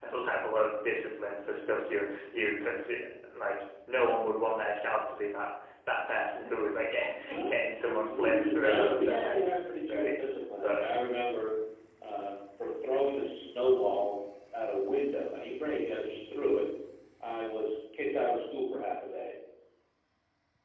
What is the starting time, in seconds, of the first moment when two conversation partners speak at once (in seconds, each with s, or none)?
7.3 s